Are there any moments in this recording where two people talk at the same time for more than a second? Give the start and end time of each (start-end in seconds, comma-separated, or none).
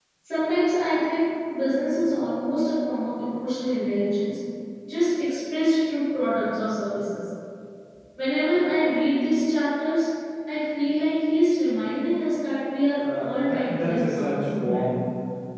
13.0-14.9